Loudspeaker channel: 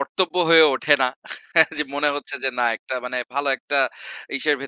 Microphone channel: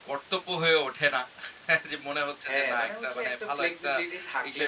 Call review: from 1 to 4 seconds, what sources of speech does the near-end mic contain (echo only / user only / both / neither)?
both